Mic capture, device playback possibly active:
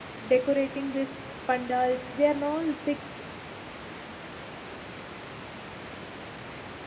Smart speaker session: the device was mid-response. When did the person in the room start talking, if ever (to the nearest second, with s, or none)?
0 s